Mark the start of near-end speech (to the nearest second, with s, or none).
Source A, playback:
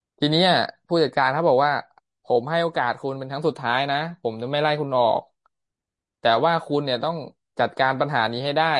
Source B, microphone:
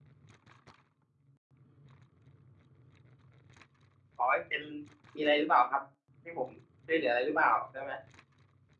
4 s